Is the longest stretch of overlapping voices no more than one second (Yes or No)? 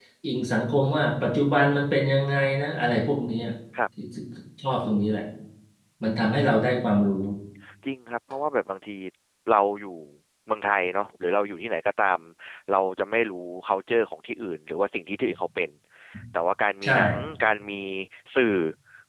Yes